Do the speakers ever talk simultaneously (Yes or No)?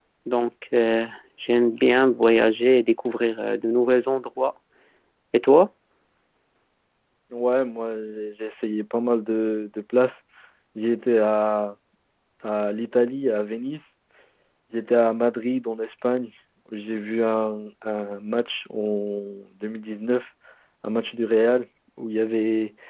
No